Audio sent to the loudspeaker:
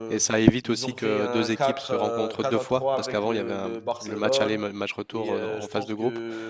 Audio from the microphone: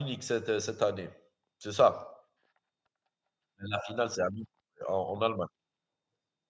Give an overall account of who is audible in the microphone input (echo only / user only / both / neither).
user only